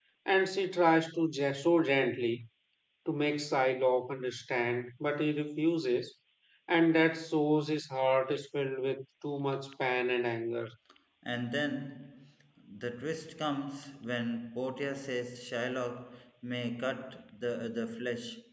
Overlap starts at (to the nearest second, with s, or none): none